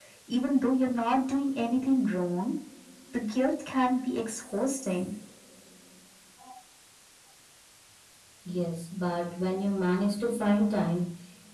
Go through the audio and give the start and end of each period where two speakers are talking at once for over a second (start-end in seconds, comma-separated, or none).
none